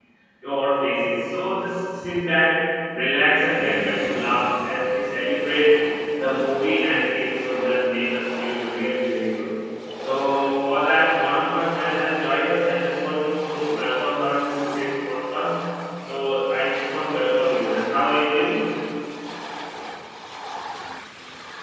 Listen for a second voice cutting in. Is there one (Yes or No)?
No